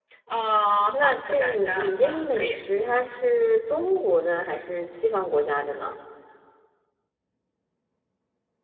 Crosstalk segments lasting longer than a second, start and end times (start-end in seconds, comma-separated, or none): 0.9-2.6